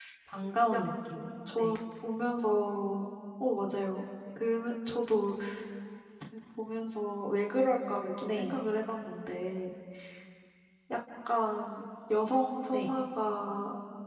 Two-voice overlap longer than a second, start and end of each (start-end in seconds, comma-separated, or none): none